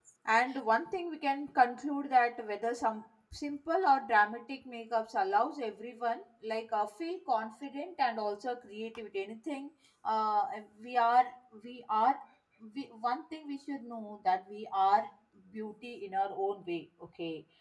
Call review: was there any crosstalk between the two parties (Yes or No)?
No